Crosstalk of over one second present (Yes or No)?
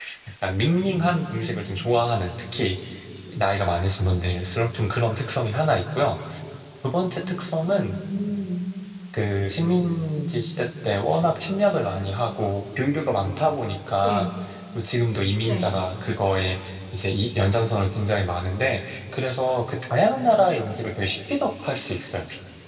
No